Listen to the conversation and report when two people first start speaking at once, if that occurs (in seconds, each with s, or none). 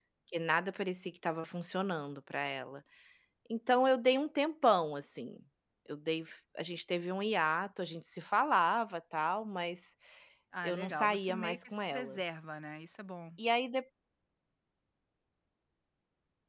10.6 s